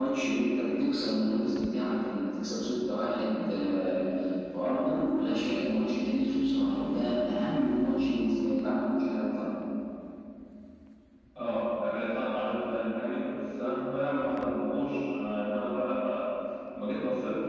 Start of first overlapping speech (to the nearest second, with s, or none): none